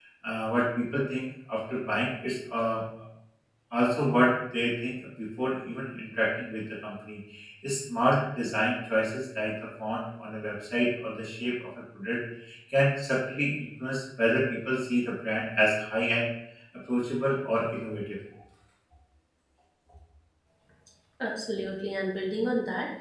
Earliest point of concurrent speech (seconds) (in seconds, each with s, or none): none